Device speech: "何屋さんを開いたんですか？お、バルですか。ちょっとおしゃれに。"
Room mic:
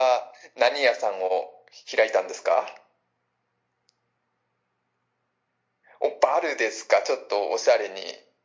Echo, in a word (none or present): present